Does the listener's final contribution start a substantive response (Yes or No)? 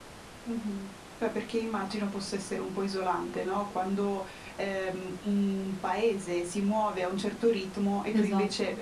No